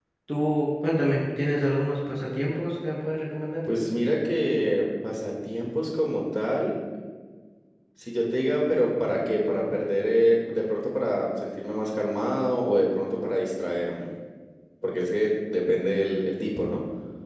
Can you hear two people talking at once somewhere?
No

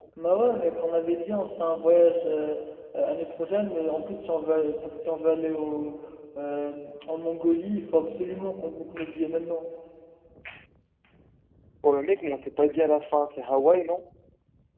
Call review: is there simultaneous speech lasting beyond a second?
No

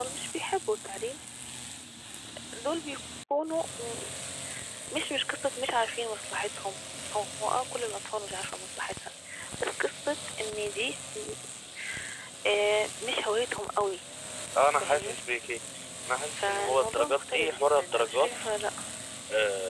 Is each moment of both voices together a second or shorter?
No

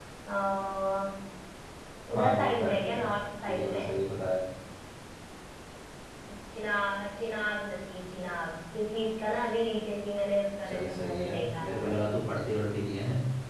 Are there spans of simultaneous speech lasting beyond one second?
Yes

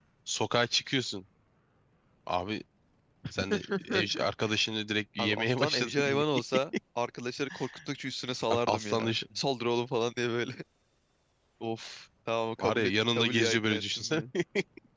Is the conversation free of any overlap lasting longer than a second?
No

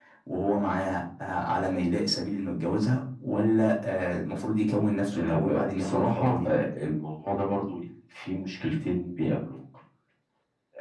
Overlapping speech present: Yes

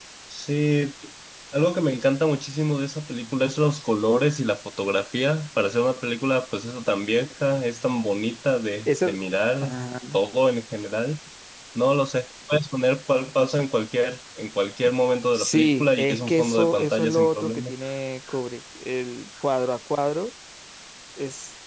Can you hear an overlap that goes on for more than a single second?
Yes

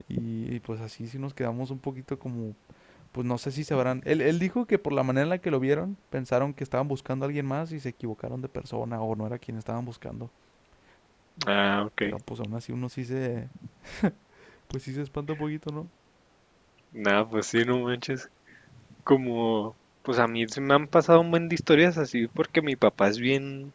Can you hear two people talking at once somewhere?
No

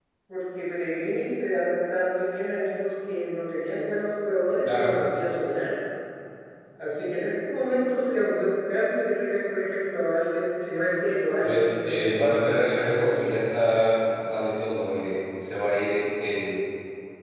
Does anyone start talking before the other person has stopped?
Yes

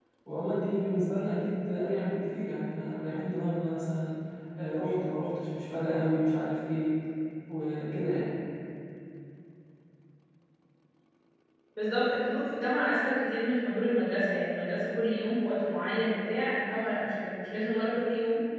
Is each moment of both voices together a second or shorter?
Yes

